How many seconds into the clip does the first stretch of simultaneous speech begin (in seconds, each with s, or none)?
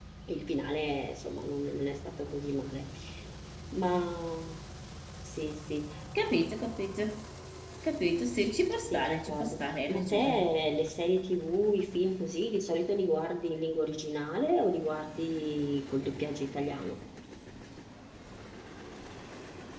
8.9 s